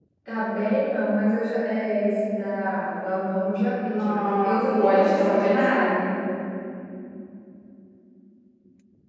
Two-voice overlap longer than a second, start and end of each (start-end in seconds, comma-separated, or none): 4.0-6.0